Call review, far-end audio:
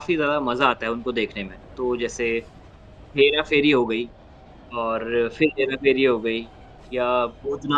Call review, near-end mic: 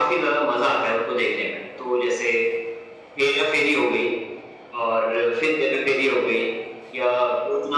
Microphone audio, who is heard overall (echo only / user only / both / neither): echo only